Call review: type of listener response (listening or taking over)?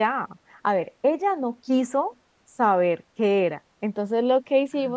listening